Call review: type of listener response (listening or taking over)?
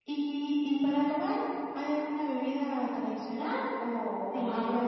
listening